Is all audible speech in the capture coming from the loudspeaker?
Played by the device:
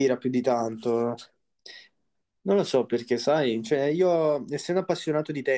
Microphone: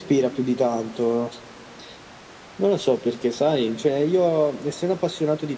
Yes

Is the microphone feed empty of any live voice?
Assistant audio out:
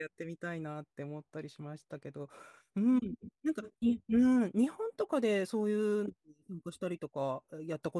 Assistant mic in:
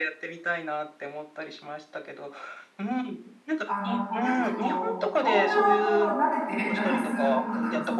No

